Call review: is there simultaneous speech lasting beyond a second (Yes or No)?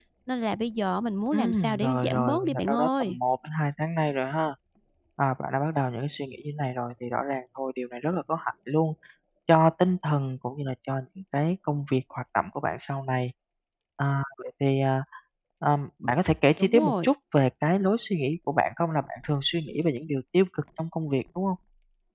Yes